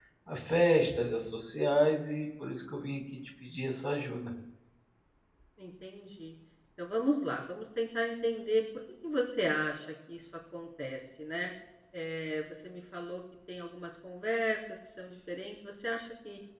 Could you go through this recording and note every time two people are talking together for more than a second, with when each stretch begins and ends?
none

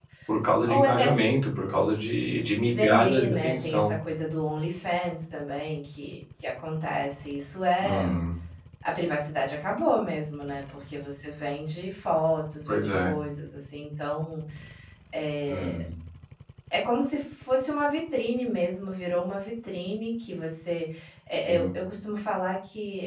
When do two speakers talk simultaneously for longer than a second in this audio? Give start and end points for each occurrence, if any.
2.4-4.0

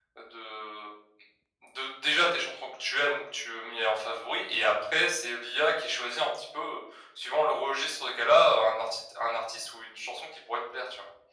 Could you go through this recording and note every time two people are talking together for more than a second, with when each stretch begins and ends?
none

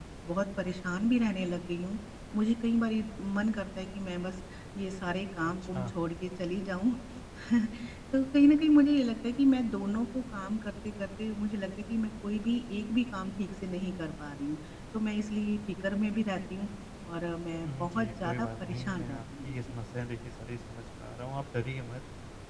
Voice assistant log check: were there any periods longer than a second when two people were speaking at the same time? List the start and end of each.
17.6-19.6

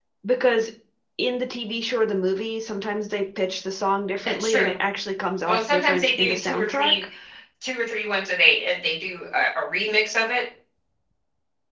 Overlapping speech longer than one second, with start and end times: 5.5-6.9

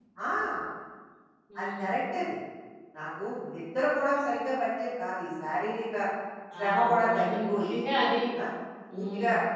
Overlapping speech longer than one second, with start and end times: 6.6-7.8

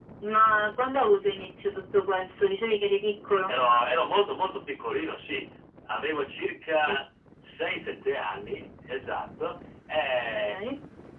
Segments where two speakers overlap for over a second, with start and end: none

